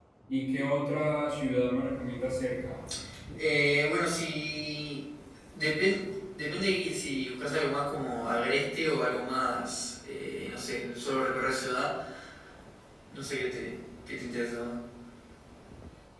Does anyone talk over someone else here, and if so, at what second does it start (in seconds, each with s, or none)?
none